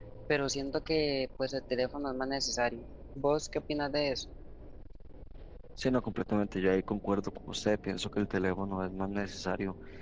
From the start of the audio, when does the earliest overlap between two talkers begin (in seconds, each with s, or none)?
none